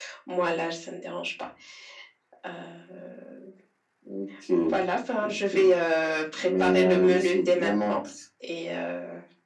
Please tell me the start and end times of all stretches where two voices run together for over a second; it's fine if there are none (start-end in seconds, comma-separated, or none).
6.5-8.0